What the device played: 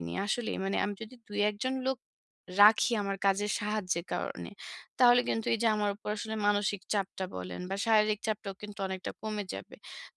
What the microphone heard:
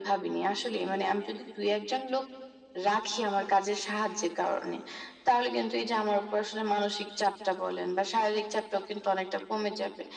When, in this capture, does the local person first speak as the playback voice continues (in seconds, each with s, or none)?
none